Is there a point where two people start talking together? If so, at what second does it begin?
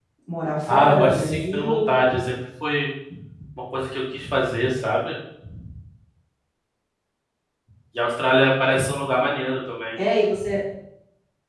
0.7 s

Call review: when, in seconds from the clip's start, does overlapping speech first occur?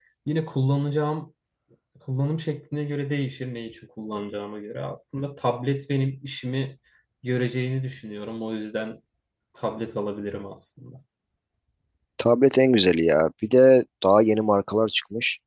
none

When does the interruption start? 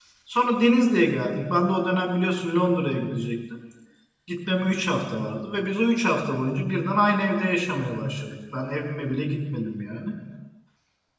none

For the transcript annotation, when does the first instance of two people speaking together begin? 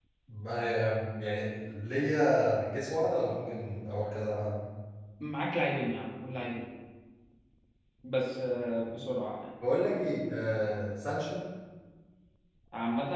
none

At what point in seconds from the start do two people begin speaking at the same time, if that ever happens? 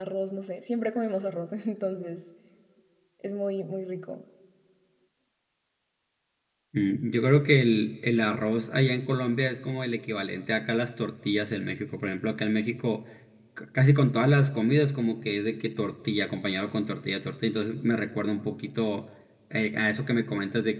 none

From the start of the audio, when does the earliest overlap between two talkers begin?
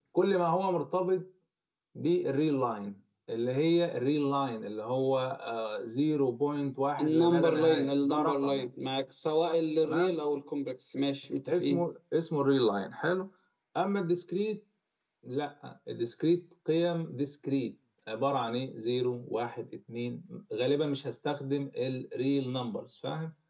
7.0 s

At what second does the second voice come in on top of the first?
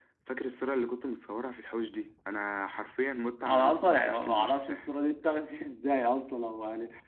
3.5 s

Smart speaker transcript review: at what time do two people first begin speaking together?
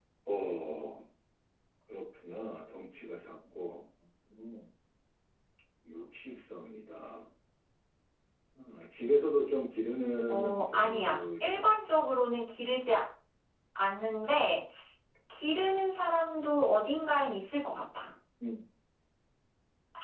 10.3 s

